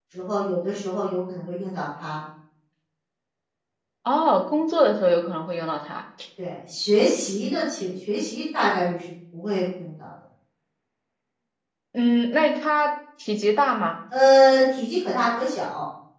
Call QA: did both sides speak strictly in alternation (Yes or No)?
Yes